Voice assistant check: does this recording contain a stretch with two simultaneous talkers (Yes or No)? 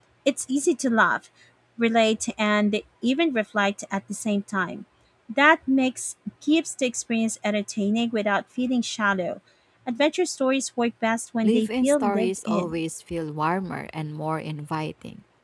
Yes